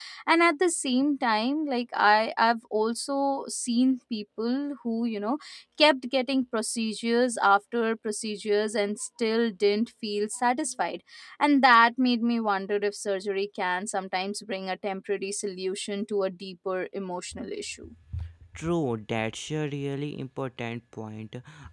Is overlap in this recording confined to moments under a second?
Yes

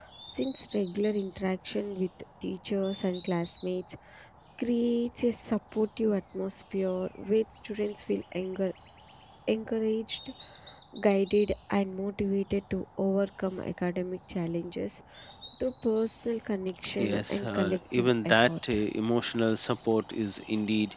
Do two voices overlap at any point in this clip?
Yes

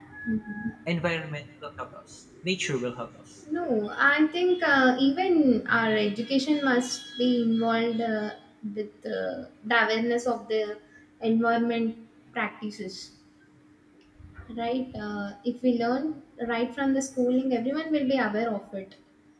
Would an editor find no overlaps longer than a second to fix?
Yes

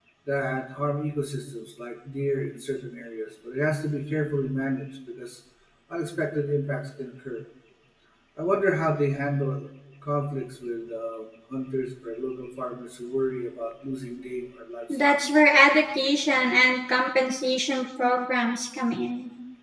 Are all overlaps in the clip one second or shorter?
Yes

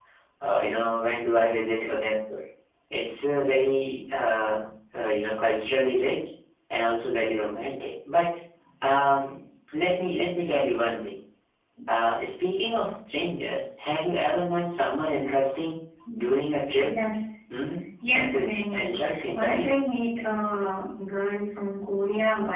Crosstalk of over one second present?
Yes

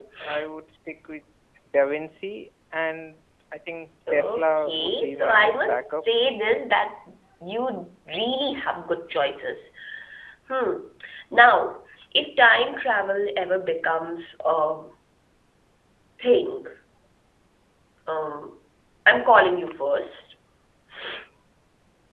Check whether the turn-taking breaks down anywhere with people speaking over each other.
Yes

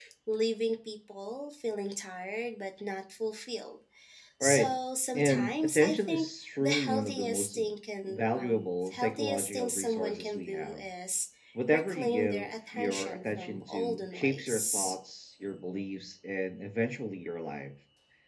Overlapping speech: Yes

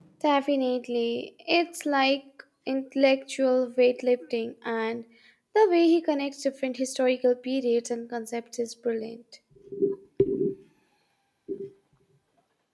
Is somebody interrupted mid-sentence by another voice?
No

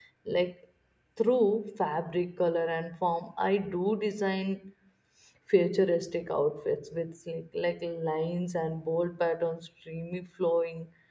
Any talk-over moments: No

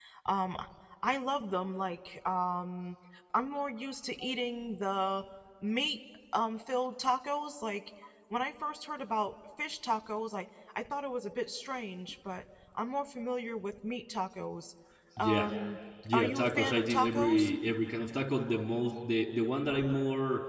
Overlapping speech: Yes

